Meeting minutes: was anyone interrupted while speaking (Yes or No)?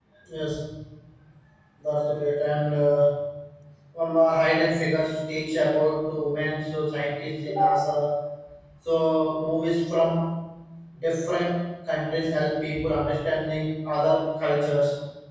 No